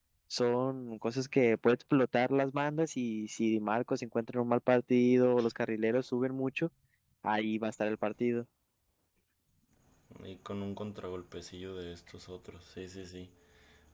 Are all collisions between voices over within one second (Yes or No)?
Yes